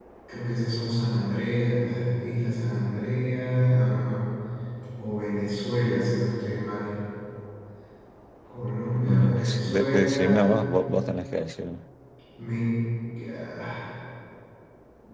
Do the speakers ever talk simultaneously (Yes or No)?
Yes